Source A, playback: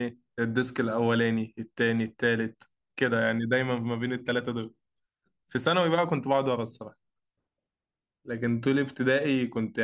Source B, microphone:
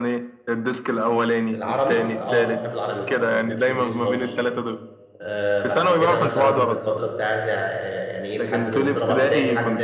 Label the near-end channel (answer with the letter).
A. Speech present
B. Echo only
A